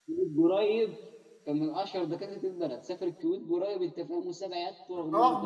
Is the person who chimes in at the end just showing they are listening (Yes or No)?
No